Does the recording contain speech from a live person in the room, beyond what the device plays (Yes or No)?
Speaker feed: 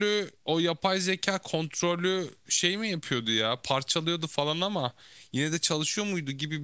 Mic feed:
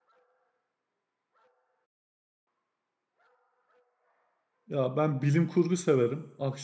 Yes